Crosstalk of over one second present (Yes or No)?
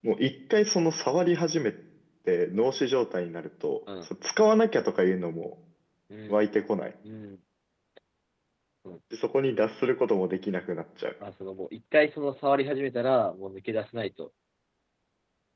No